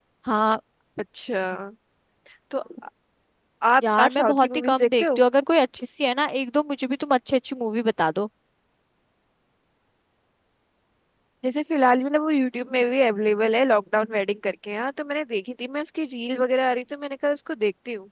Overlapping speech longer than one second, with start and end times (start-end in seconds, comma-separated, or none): 3.8-5.2